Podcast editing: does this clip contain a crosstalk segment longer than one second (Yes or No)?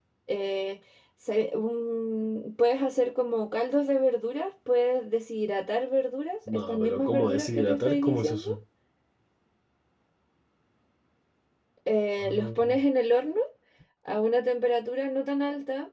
Yes